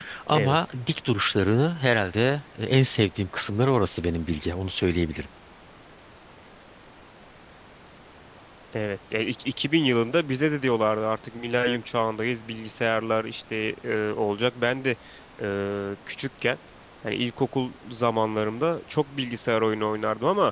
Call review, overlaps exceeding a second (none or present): none